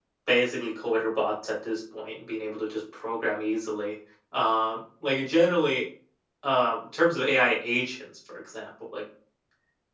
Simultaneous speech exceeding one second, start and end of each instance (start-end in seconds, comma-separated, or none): none